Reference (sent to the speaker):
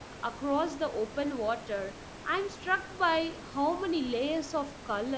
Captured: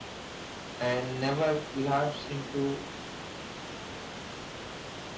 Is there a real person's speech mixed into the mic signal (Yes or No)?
Yes